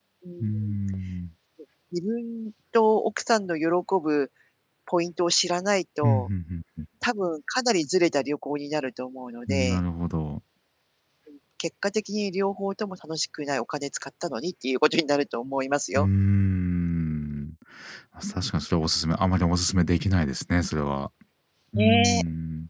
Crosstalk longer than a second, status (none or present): none